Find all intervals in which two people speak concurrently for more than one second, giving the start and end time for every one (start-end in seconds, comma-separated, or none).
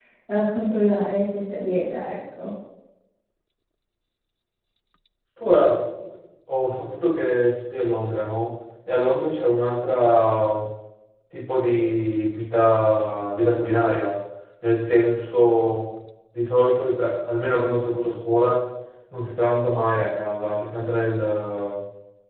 none